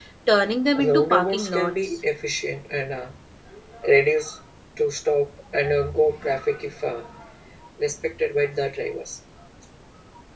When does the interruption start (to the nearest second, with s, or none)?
1 s